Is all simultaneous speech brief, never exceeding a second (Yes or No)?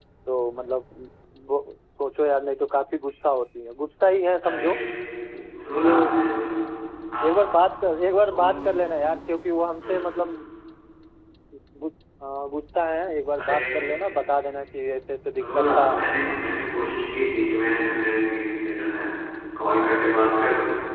Yes